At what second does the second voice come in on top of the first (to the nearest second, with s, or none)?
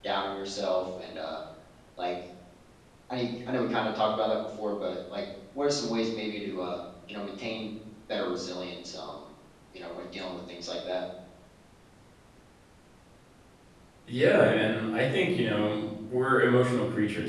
none